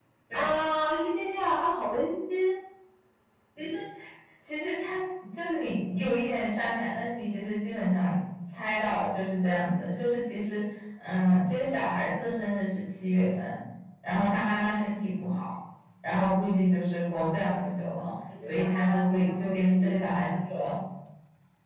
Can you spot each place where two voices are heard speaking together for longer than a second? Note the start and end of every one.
18.5-20.2

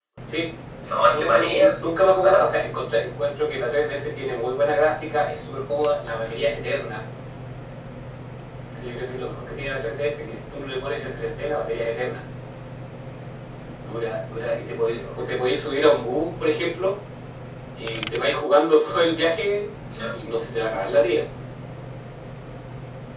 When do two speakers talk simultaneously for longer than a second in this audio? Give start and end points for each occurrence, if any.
1.1-2.5

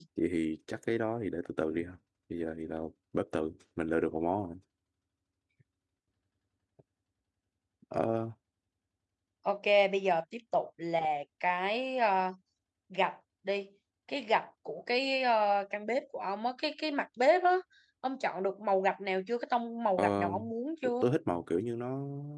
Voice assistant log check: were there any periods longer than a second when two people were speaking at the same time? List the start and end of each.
none

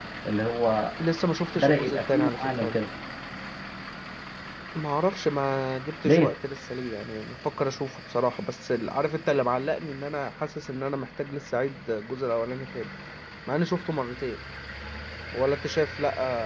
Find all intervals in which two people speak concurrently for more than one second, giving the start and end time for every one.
1.6-2.8

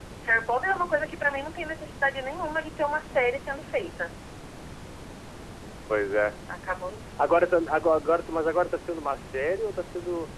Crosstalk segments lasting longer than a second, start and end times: none

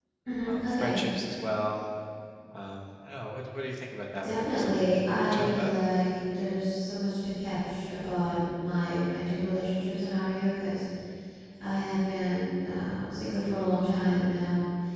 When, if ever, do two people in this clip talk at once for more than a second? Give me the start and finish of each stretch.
4.2-5.7

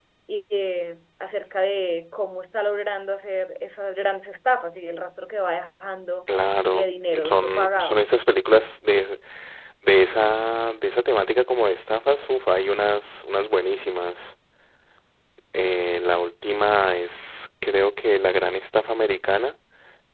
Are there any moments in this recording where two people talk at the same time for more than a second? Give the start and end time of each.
6.7-8.0

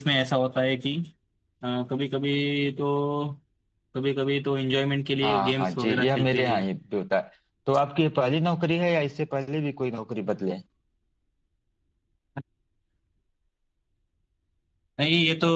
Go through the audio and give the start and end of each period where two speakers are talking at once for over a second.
5.2-6.6

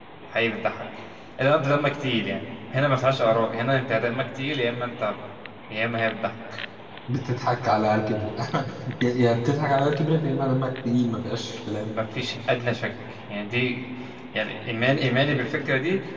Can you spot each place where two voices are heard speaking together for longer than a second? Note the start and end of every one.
none

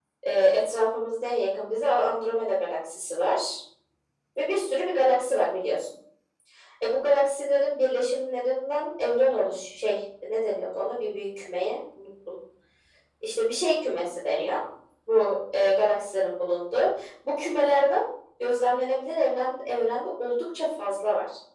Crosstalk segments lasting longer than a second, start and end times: none

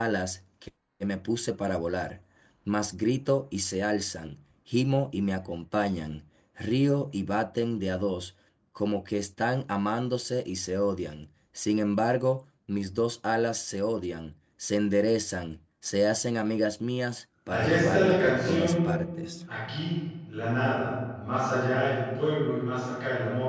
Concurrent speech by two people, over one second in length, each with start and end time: 17.5-18.9

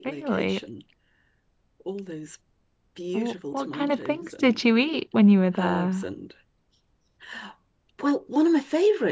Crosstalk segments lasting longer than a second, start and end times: 3.1-4.6

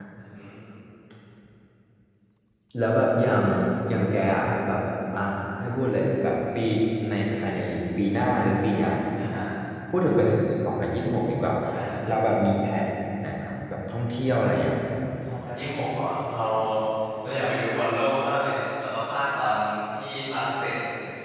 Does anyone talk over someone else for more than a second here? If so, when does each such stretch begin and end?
none

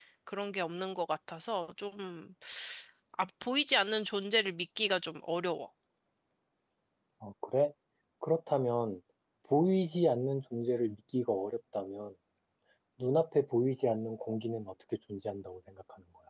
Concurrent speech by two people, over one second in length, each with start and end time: none

